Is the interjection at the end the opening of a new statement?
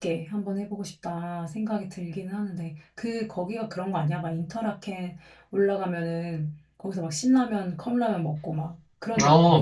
Yes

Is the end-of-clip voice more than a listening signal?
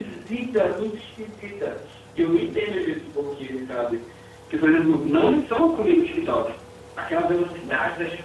No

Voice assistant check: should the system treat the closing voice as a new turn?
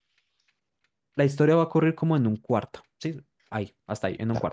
Yes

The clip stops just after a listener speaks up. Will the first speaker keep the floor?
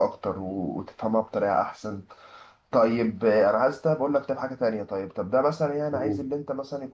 Yes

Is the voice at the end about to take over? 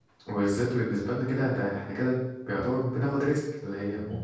No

